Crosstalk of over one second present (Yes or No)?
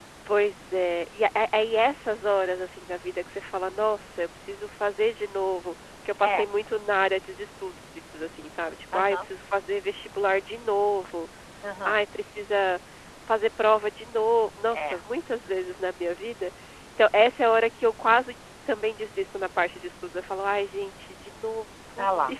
No